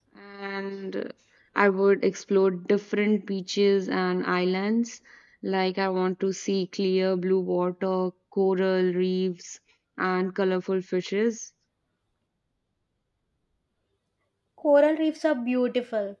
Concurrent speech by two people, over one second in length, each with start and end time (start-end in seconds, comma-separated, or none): none